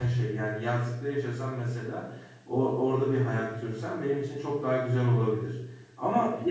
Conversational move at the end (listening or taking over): listening